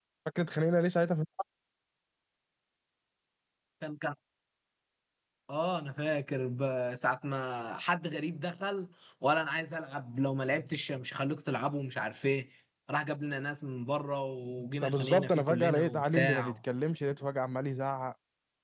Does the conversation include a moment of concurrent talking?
Yes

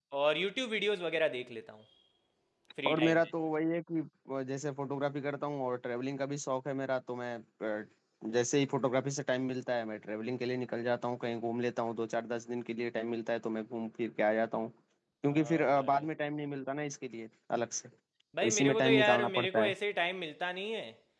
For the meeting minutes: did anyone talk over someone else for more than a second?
Yes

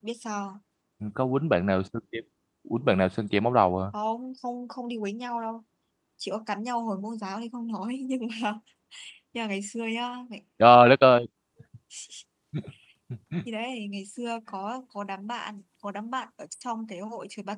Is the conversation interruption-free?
Yes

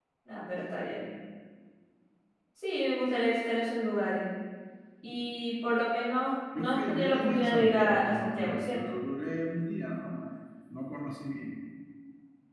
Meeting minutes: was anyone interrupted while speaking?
Yes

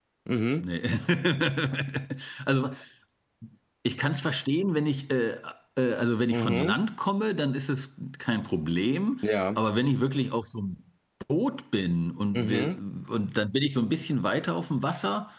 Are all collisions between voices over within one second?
Yes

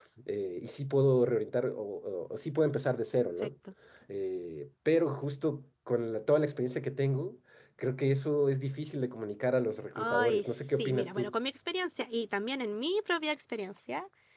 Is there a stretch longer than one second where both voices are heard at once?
Yes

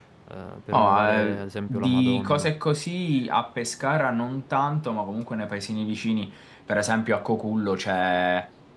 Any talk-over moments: Yes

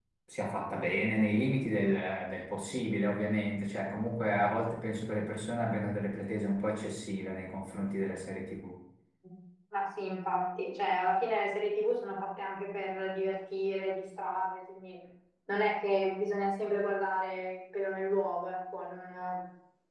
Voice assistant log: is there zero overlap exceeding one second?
Yes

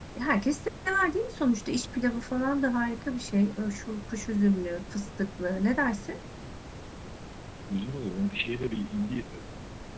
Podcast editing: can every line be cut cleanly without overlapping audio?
Yes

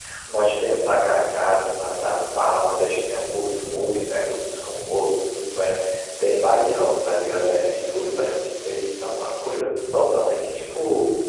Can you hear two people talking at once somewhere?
No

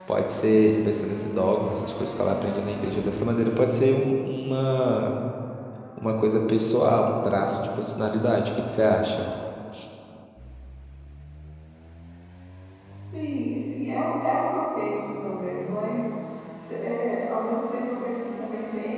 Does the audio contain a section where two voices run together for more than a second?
No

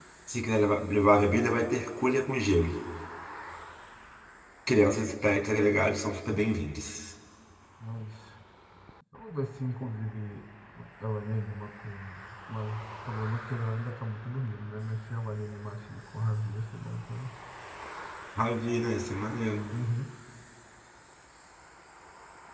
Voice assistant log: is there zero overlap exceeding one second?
Yes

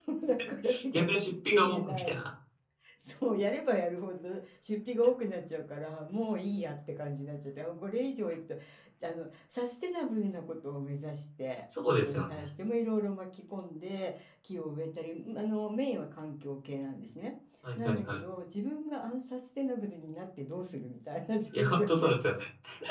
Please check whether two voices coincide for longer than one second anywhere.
Yes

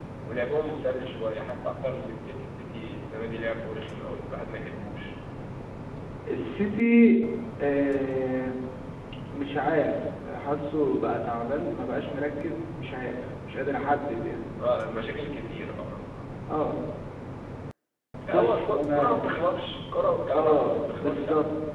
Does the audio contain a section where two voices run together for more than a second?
Yes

